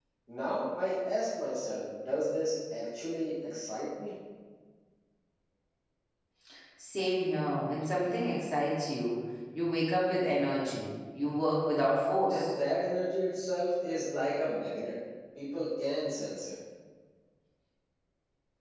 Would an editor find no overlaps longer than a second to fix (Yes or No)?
Yes